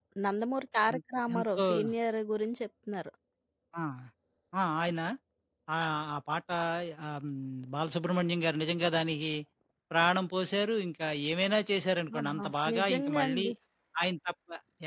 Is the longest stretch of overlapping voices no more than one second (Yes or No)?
No